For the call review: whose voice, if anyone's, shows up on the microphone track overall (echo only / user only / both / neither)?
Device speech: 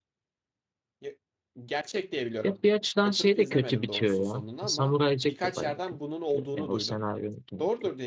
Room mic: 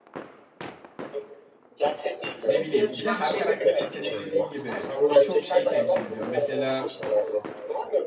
both